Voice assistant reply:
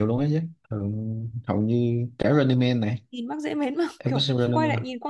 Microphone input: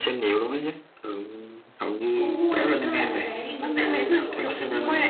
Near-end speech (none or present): present